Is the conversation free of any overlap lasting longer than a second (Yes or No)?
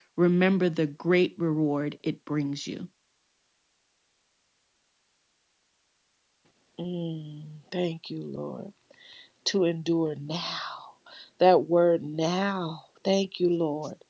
Yes